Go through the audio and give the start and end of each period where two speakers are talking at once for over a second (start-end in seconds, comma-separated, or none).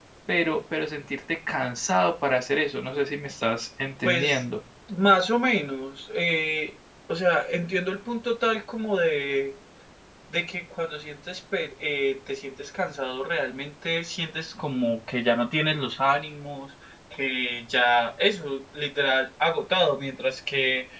none